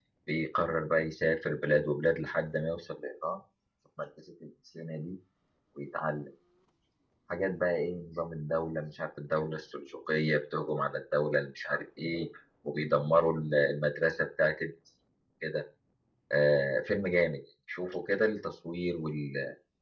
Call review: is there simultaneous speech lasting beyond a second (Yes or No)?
No